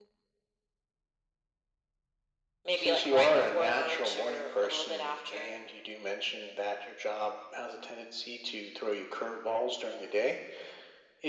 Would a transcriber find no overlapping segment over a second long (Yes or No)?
No